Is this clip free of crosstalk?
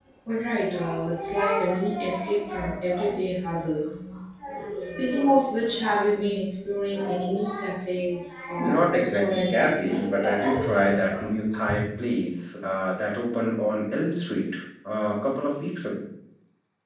No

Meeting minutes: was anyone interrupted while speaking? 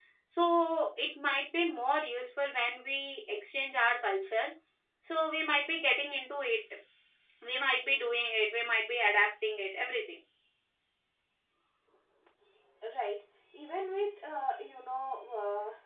No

